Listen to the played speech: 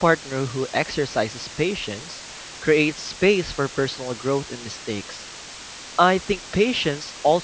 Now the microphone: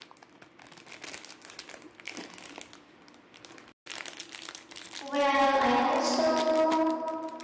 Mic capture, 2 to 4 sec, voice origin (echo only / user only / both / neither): neither